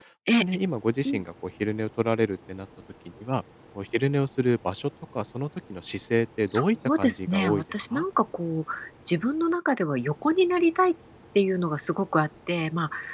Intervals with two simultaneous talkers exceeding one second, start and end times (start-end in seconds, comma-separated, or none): 6.5-8.0